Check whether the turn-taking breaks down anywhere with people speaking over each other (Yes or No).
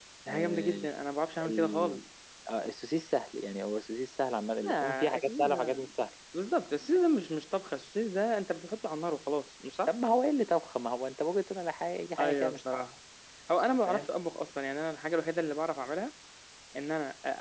Yes